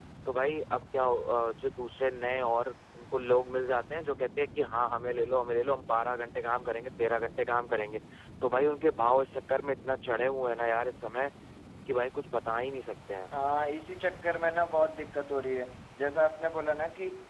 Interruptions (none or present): none